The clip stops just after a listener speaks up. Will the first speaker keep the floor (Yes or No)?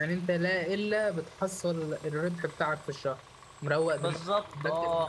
No